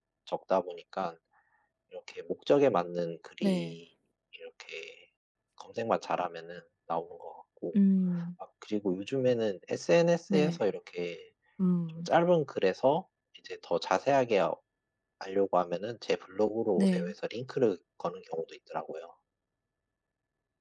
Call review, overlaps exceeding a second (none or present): none